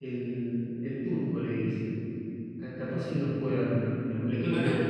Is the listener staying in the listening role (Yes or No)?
No